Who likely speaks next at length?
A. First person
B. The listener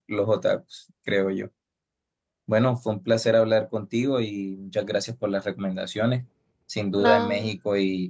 A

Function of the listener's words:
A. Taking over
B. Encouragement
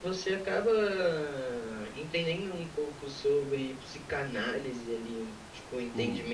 B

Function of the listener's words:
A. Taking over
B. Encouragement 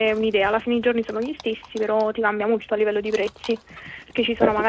B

